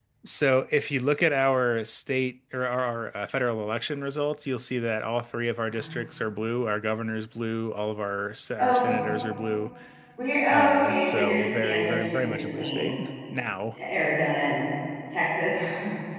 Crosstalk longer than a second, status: present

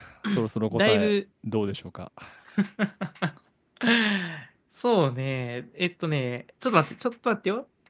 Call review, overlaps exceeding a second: none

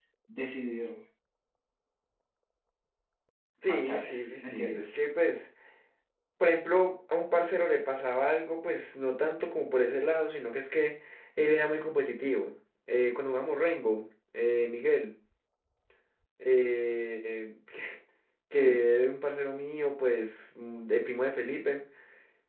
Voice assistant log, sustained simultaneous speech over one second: present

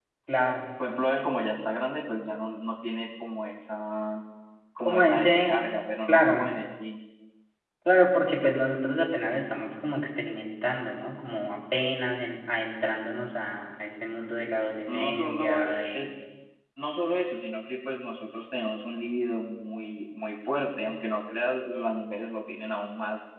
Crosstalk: present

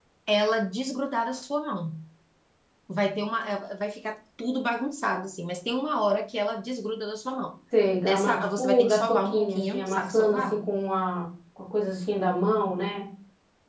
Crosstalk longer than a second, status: present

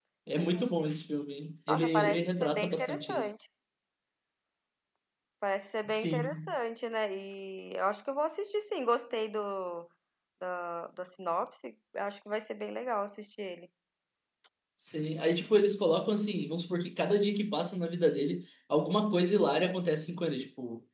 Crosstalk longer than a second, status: present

